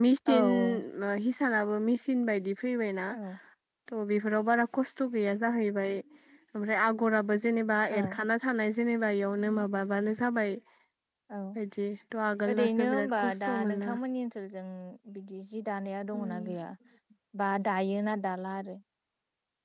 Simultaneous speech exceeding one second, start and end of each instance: 12.5-13.9

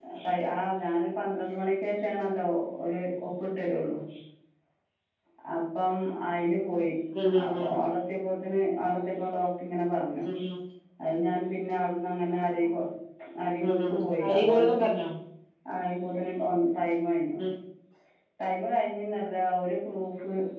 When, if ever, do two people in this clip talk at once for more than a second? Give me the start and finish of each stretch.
13.6-14.9

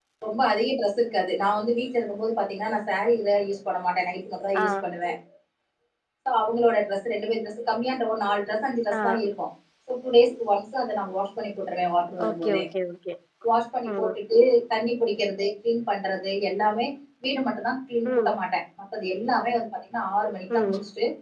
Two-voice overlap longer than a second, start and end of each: none

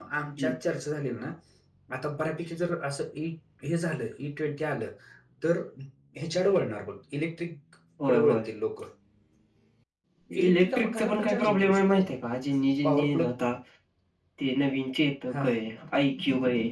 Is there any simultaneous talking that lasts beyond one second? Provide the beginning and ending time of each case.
10.4-11.8

